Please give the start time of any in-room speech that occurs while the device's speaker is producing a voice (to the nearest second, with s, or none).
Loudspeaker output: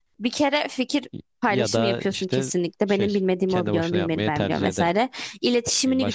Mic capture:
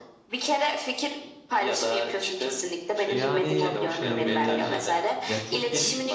3 s